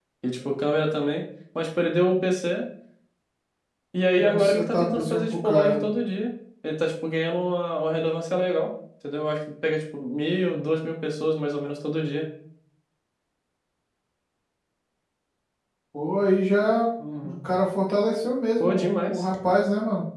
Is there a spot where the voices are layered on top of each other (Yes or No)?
Yes